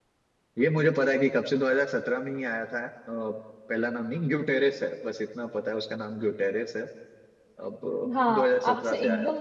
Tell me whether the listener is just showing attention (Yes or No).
No